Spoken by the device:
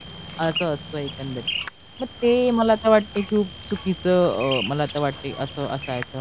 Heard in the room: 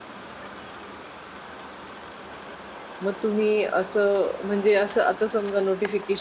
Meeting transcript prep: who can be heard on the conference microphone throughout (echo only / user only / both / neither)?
user only